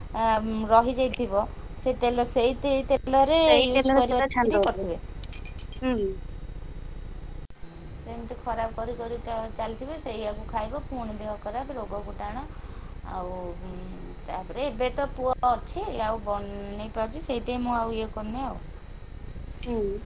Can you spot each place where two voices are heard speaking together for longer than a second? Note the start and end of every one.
3.5-4.8

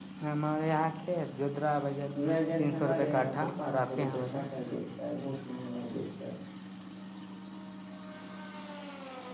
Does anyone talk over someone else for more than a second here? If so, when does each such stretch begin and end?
2.6-4.2

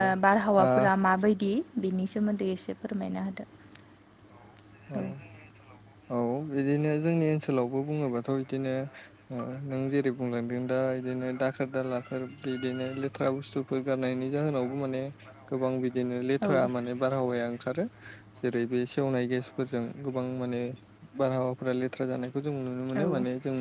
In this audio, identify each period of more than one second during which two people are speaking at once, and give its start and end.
none

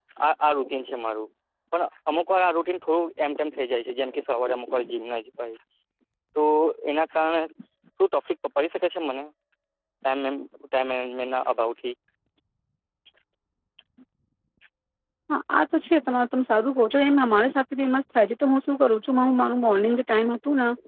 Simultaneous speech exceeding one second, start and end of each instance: none

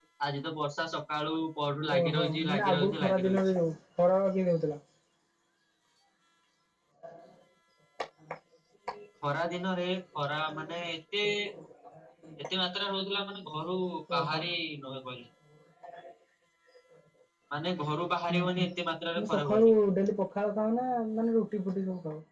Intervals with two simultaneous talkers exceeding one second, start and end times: 2.0-3.4

